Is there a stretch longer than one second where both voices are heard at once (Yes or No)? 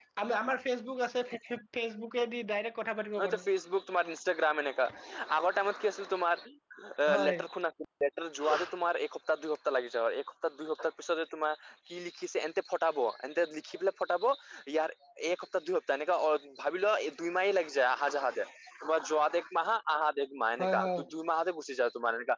No